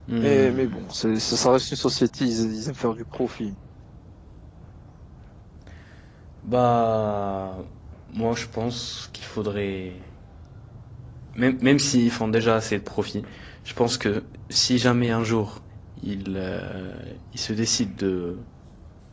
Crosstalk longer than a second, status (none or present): none